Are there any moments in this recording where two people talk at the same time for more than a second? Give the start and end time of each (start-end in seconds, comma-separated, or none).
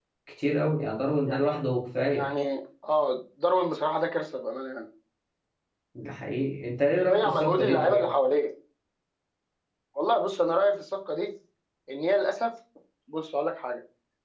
6.9-8.2